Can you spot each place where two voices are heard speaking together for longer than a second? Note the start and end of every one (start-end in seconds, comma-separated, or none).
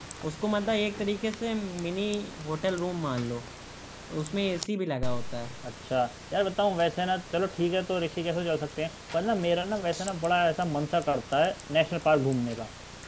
none